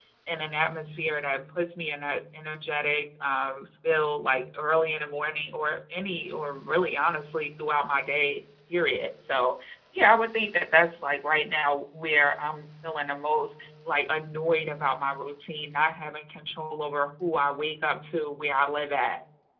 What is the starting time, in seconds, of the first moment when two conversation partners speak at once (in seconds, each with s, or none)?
none